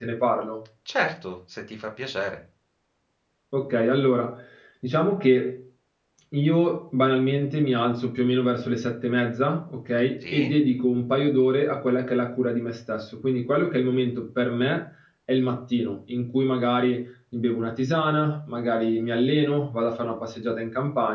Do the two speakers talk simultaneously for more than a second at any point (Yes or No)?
No